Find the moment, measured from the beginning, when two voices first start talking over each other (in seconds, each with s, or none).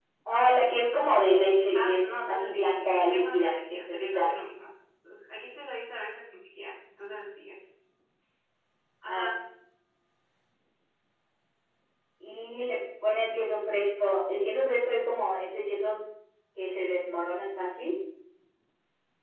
1.7 s